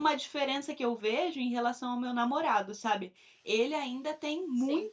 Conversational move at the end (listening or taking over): listening